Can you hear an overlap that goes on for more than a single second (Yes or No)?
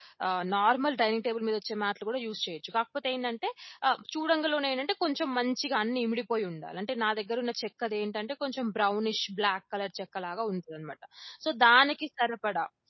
No